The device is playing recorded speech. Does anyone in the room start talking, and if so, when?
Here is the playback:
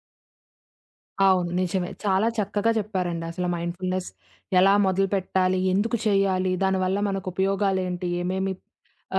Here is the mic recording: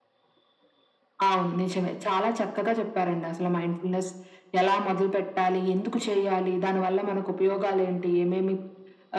none

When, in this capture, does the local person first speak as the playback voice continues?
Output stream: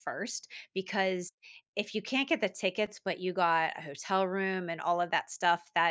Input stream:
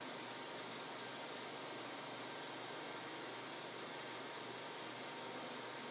none

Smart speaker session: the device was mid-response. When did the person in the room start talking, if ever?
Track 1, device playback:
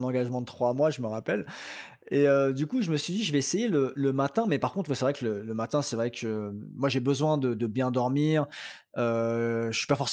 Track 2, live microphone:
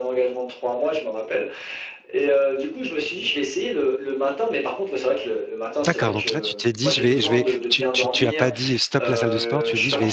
6 s

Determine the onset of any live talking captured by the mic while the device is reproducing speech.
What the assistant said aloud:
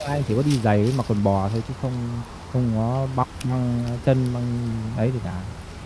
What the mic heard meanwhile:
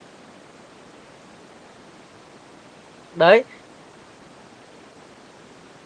3 s

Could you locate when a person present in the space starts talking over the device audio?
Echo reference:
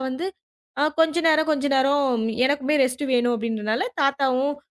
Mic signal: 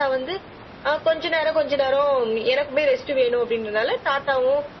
none

